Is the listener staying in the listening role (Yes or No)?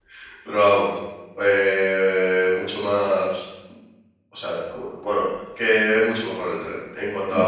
No